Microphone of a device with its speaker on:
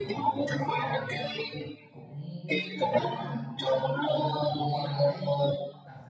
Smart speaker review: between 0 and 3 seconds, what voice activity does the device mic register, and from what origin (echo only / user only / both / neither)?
both